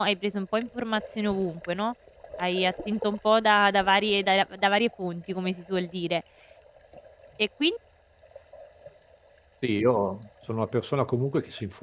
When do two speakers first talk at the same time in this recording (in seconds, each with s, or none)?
none